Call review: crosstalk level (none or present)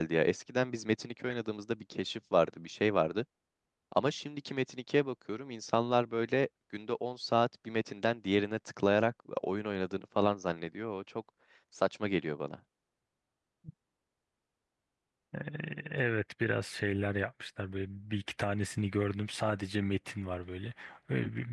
none